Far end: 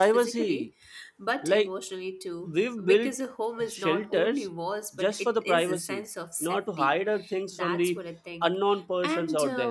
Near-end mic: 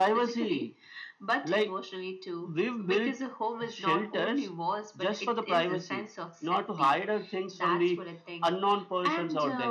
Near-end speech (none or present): none